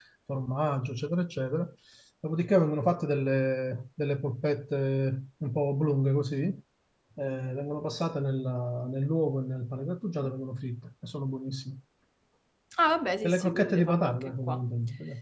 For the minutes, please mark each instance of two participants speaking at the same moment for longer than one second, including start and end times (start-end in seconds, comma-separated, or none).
13.2-14.6